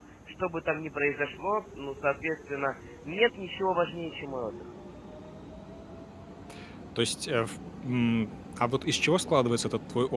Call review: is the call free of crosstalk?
Yes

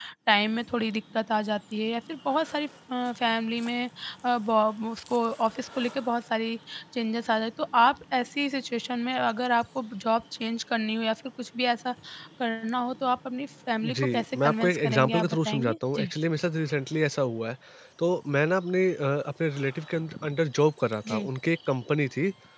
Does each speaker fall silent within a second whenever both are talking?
No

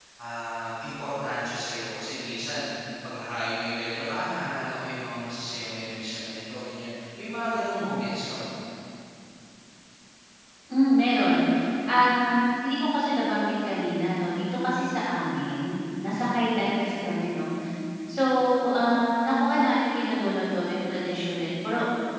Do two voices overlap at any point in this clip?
No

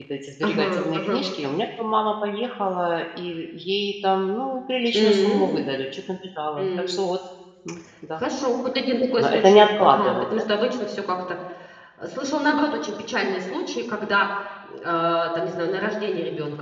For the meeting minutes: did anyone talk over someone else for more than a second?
Yes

